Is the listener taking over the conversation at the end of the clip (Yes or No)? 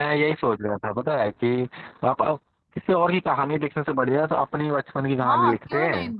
Yes